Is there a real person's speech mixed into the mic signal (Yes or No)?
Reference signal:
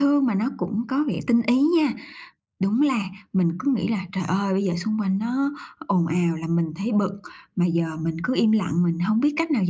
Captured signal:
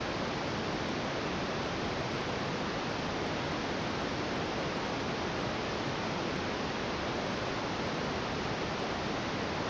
No